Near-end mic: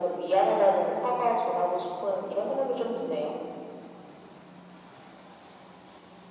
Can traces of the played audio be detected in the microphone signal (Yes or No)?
Yes